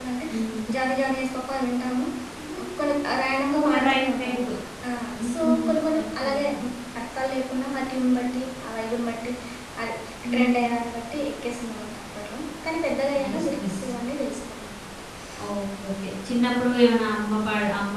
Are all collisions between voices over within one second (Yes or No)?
No